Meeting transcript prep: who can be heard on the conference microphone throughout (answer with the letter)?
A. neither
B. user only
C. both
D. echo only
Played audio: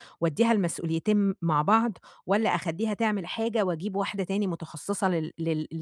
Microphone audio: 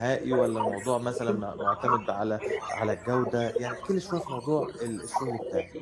C